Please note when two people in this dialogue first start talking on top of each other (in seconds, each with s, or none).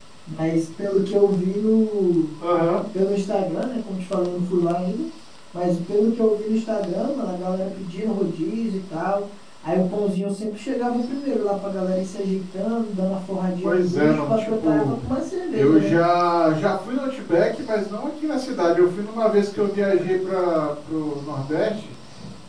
13.6 s